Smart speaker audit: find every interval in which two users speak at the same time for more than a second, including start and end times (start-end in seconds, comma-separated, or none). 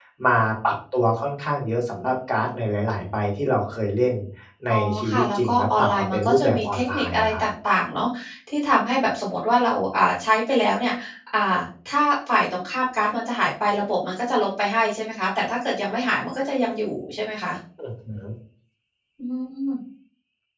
4.7-7.4